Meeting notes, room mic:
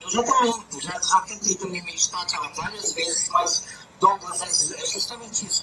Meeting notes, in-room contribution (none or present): none